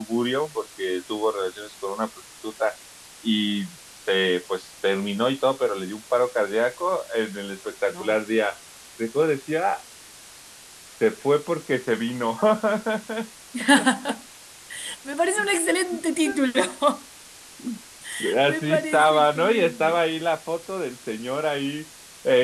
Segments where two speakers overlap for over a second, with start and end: 18.5-20.0

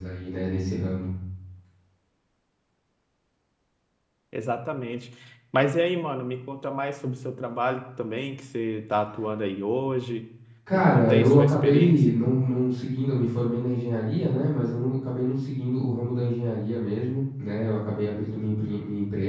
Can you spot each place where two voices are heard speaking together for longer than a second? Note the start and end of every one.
10.7-12.0

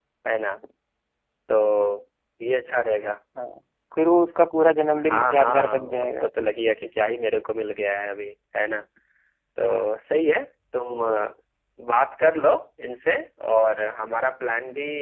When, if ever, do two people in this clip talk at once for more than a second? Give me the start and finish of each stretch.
5.0-6.3

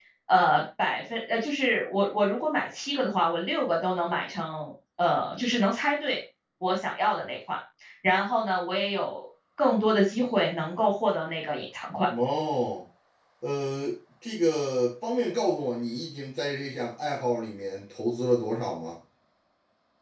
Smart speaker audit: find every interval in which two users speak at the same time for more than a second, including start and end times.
none

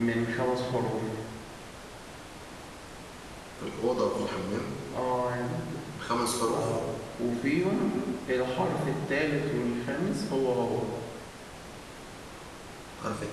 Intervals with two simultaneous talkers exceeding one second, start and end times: none

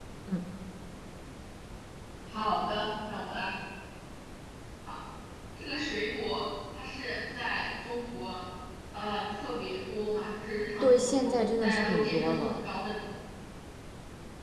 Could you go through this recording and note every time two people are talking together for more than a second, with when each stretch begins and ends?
10.8-12.6

